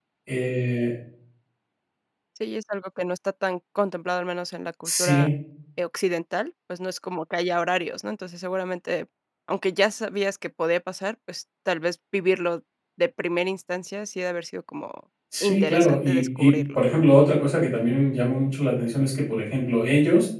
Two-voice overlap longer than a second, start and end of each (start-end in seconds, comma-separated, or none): 15.4-17.1